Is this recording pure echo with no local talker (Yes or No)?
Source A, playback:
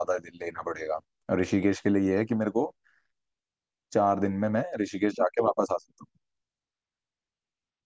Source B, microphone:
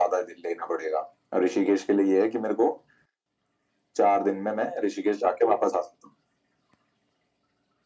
Yes